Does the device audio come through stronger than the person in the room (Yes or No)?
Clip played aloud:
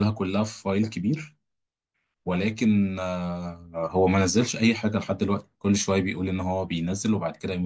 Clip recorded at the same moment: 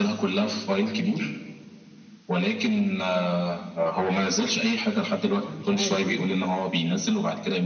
Yes